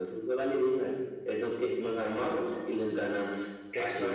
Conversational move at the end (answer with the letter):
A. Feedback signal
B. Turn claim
B